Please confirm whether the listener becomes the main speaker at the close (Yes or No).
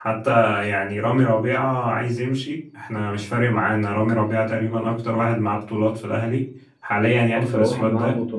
Yes